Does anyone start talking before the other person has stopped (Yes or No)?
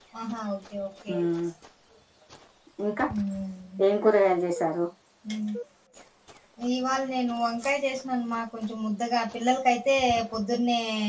No